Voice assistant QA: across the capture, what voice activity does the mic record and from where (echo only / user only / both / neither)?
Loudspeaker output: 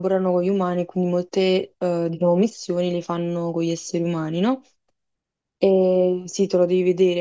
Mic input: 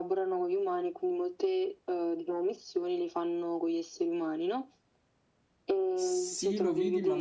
both